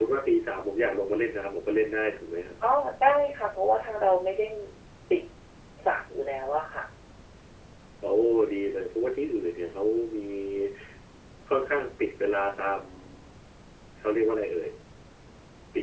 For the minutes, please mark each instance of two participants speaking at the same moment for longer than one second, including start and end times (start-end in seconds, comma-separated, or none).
none